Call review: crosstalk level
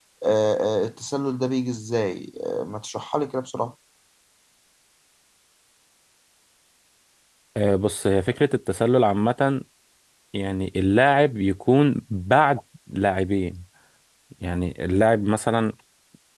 none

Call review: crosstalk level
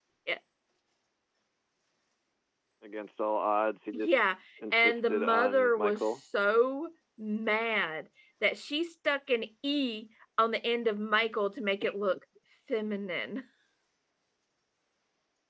present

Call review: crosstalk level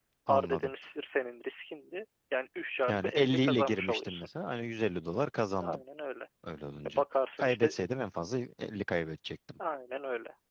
present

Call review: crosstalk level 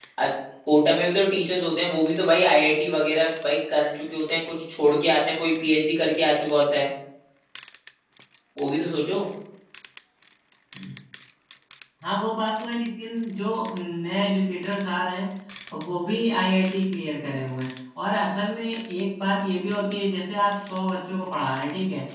none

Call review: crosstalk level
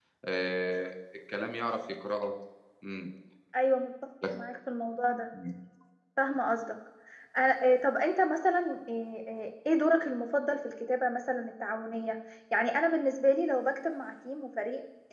none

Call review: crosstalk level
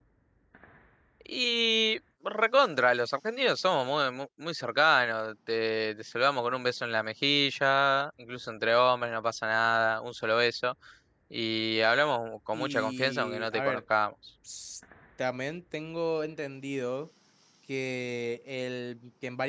present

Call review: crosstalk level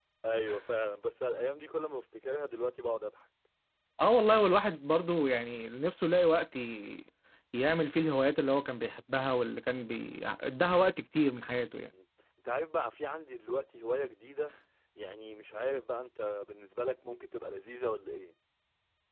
none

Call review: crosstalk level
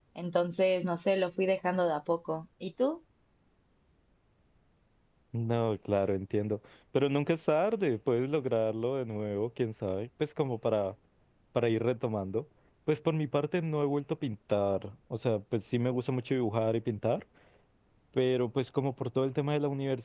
none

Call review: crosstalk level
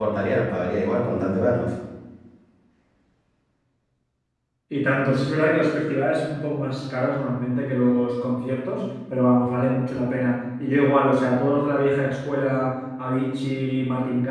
none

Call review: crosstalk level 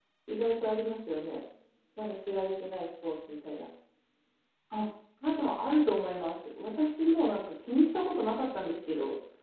none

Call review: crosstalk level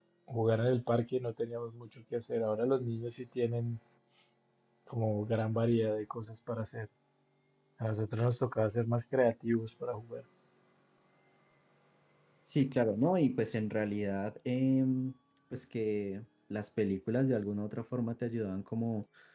none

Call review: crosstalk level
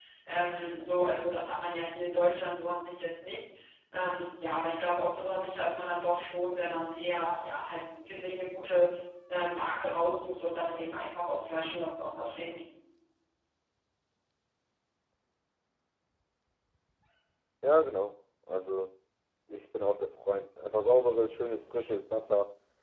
none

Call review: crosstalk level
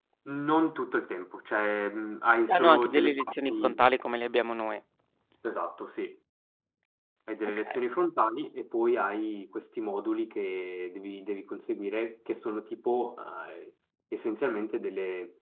present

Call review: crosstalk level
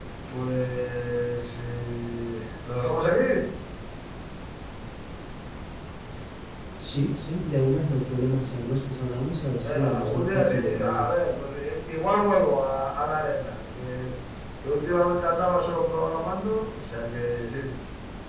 present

